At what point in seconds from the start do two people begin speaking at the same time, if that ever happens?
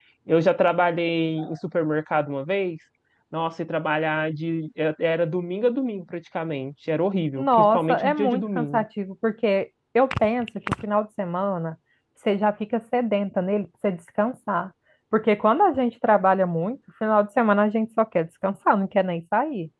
7.4 s

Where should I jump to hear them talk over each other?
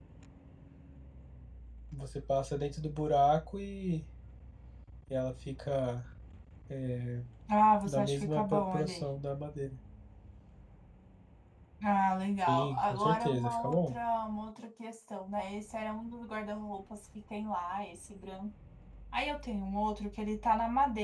7.8 s

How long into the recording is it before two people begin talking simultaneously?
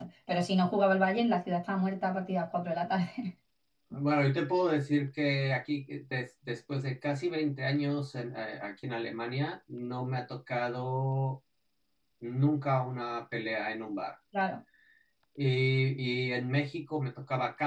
none

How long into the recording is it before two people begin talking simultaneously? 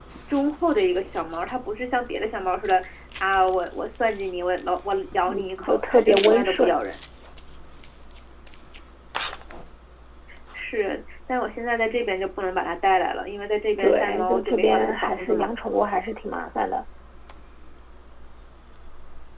5.3 s

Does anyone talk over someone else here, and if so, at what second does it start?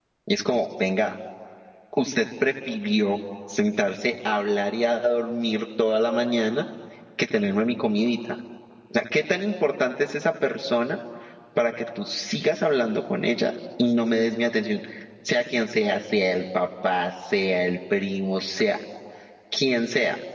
none

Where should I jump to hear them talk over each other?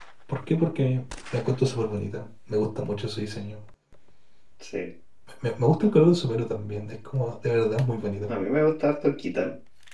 none

